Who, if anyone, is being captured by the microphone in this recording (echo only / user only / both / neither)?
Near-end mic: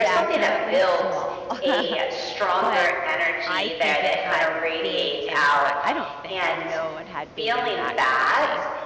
both